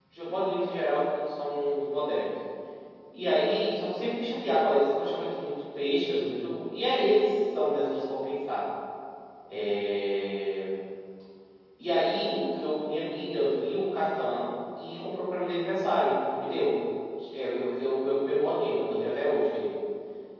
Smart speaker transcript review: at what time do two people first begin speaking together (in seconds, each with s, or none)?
none